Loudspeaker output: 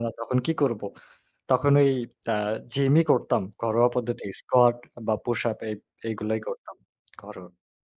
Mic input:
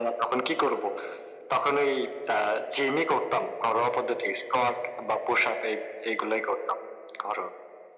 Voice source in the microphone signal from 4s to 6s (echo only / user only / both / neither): echo only